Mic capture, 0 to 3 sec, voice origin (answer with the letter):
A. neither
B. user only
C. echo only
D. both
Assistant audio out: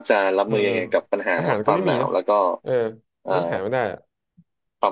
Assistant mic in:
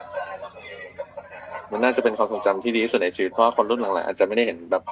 D